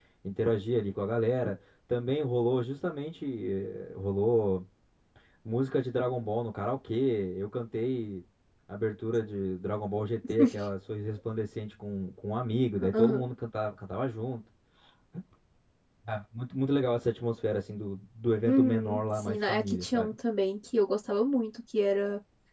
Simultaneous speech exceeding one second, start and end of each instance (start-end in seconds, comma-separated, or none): 18.4-20.1